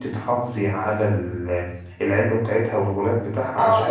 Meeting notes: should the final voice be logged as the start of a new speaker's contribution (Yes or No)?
Yes